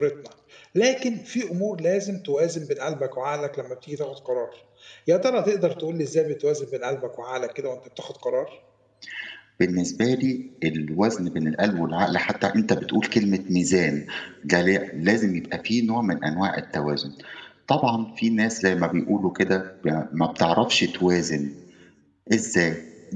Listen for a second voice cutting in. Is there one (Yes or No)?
No